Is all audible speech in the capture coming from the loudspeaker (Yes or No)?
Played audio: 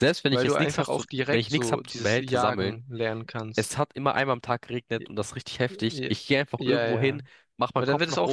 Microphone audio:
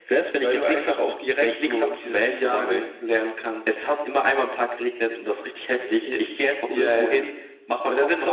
Yes